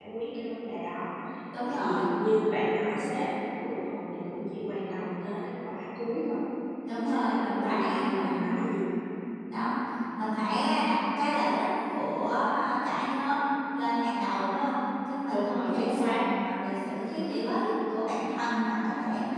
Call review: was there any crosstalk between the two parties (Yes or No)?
Yes